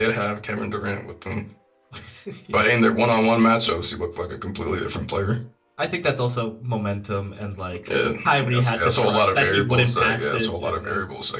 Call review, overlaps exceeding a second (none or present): present